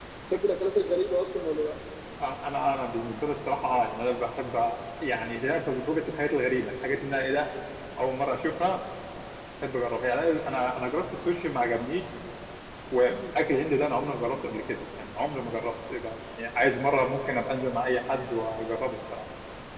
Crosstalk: none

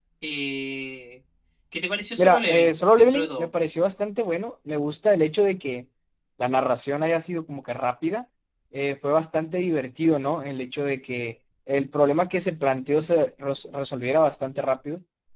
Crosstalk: present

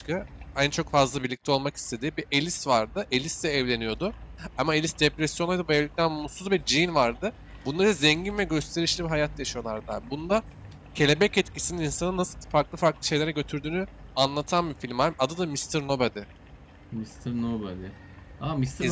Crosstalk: none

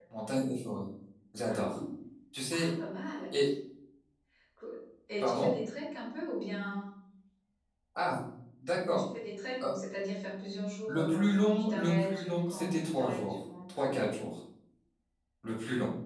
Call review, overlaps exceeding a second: present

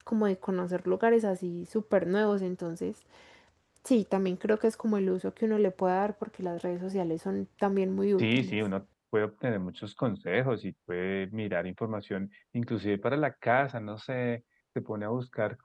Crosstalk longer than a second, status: none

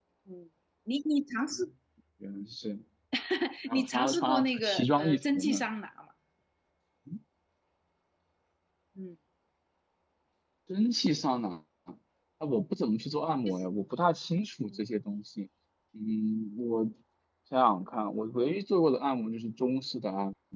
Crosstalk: present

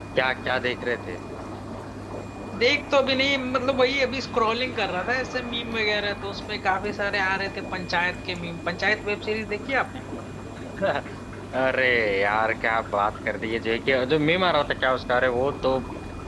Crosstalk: none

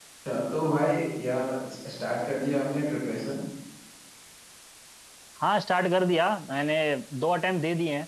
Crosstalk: none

